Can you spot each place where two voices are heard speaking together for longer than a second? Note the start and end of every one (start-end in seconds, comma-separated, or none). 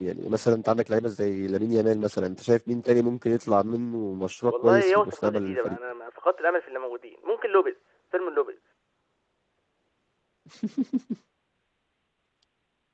4.5-5.8